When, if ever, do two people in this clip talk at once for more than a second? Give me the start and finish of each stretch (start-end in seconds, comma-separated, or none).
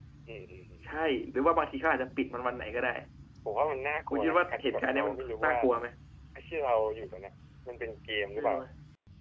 4.1-5.6